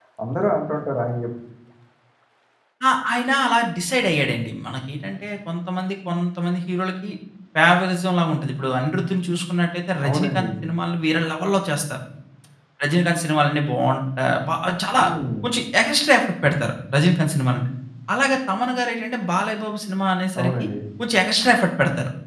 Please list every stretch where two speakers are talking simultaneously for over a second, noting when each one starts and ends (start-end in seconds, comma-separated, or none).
none